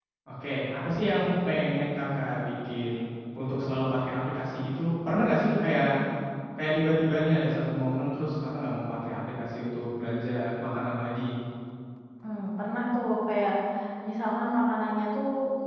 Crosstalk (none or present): none